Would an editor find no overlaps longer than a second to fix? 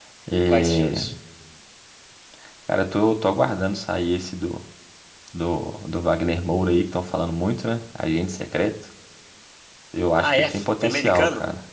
No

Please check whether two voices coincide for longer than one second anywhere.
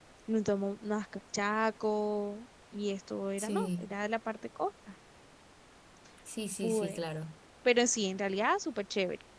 No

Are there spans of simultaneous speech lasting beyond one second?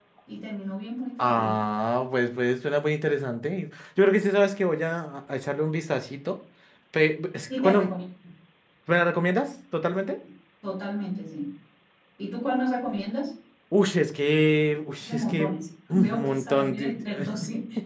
Yes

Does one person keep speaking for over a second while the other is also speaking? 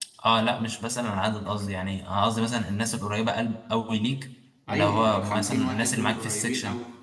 Yes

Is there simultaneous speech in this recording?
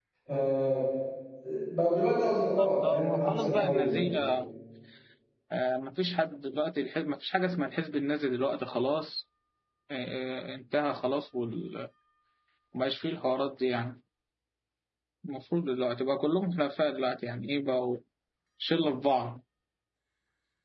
Yes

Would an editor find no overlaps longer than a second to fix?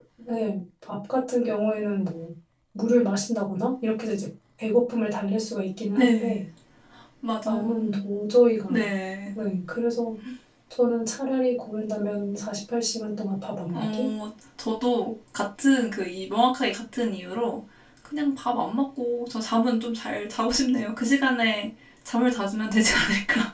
Yes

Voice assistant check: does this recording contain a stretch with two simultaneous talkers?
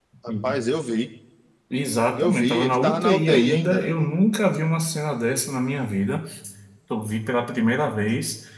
Yes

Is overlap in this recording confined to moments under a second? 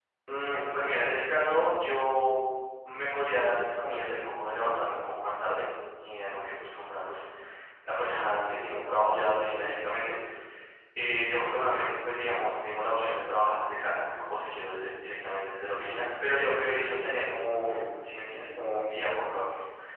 Yes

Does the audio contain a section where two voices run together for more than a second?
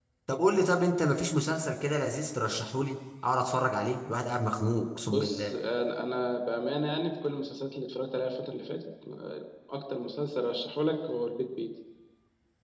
No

